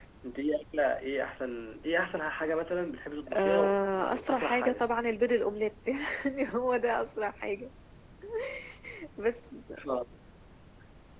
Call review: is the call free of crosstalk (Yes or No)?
No